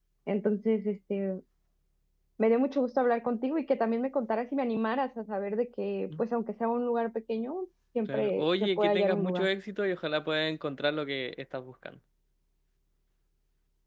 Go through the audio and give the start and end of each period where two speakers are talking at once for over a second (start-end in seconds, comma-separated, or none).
8.1-9.5